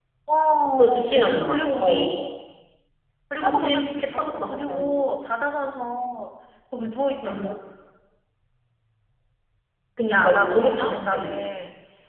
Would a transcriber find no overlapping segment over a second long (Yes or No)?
No